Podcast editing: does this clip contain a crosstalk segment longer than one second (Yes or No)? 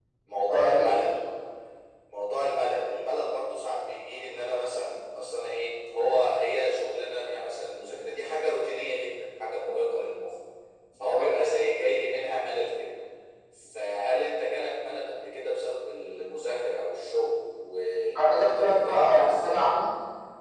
Yes